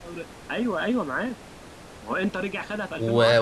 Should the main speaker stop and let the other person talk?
Yes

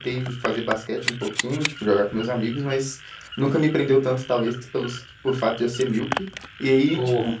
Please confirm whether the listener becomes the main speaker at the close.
No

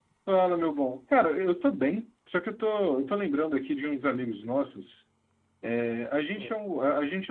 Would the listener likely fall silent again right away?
Yes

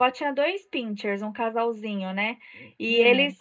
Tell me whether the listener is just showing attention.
Yes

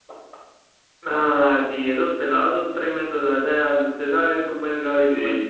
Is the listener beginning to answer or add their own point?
Yes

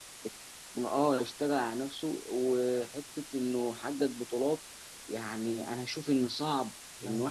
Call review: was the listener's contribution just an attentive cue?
Yes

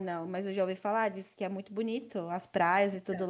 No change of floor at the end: Yes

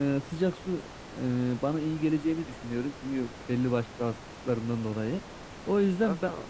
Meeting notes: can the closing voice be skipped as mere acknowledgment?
Yes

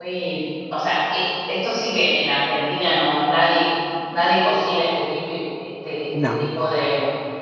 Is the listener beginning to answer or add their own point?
No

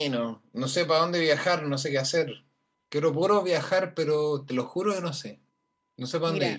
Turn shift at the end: Yes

